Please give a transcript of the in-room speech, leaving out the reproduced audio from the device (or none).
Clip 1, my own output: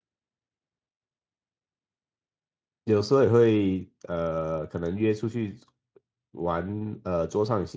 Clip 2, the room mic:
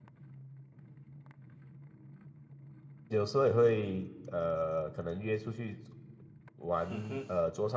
嗯哼，